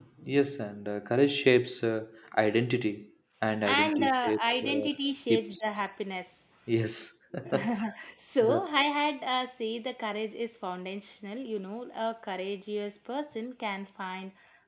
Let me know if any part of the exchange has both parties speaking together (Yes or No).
Yes